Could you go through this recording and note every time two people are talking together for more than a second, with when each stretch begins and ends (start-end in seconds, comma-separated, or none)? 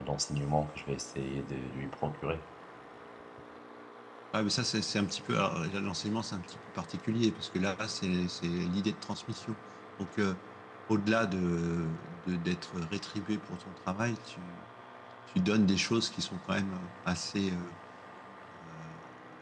none